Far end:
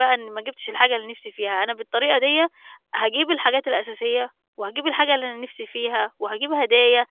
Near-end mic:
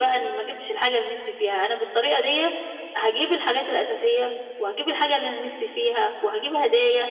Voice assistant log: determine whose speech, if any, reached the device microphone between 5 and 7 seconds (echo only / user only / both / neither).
echo only